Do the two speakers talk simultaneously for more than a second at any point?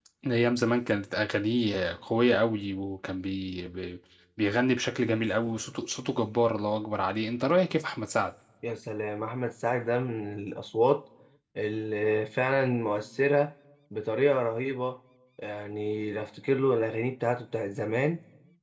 No

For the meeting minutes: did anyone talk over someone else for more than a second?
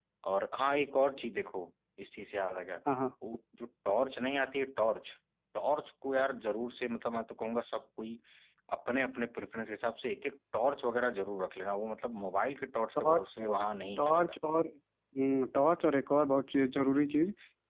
No

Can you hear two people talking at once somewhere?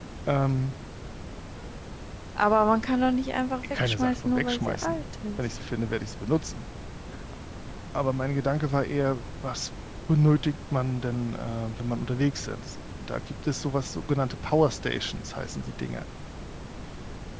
Yes, from 3.6 s

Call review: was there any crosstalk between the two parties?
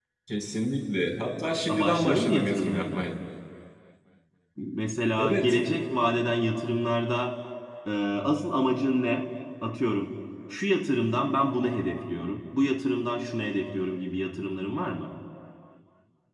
Yes, from 1.7 s

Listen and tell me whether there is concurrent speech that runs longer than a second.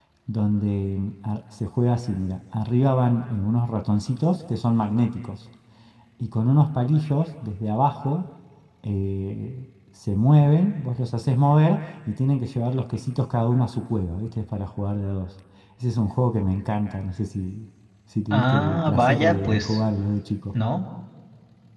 Yes, from 18.3 s

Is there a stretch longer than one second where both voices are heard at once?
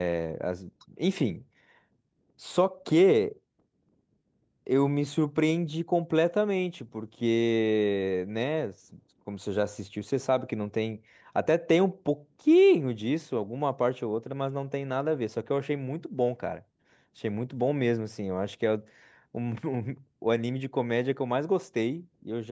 No

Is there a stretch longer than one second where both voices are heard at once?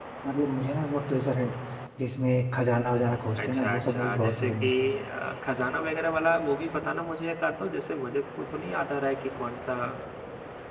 Yes, from 3.4 s

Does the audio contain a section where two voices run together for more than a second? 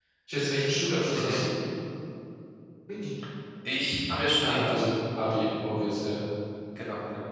No

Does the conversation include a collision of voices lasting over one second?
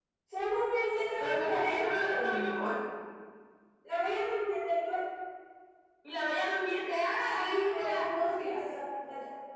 Yes, from 1.2 s

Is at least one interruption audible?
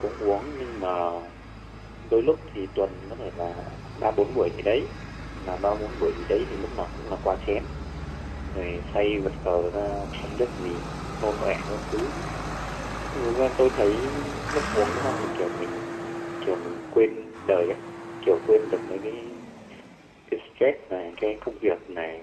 No

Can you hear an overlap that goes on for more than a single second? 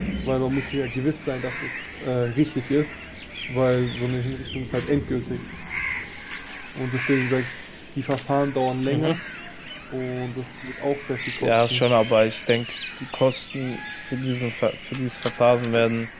No

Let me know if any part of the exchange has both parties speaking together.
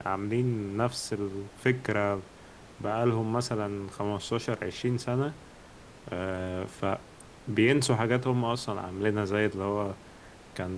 No

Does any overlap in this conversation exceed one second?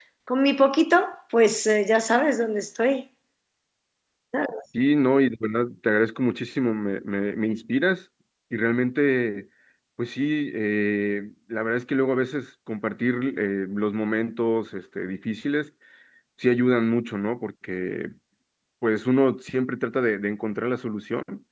No

